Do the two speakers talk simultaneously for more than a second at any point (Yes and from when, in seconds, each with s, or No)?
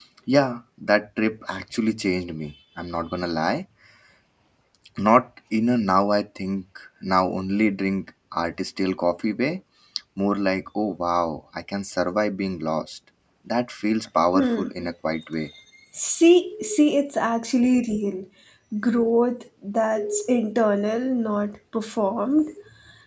No